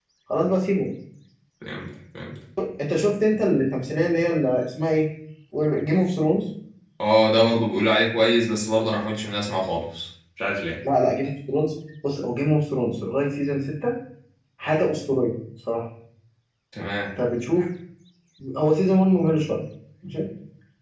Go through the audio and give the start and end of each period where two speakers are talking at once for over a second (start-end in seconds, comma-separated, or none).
none